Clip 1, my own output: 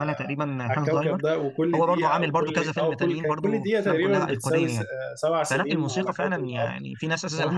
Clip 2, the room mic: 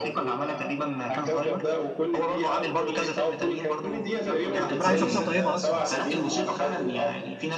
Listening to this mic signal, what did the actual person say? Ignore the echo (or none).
يعني كان بيلعب عليه شخصيه طيبه اصلا